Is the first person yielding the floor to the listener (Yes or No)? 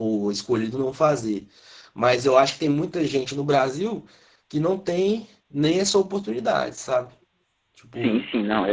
Yes